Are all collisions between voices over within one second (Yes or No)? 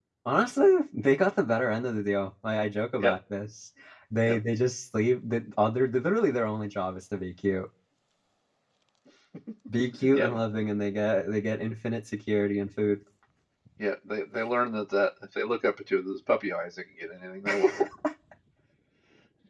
Yes